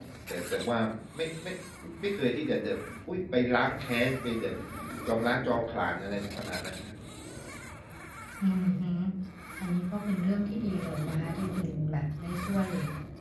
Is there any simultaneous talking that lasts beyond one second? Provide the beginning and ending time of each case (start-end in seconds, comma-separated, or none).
none